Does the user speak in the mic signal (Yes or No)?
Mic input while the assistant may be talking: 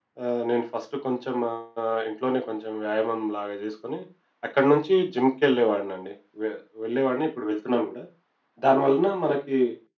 No